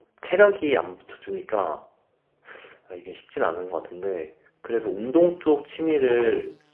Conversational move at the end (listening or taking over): listening